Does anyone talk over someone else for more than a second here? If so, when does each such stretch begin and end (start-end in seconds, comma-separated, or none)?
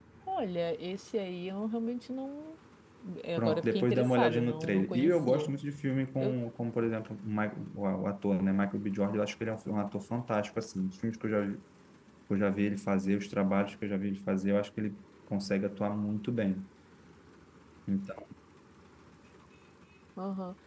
3.4-5.5